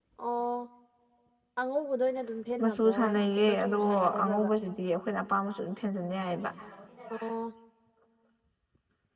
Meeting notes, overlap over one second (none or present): present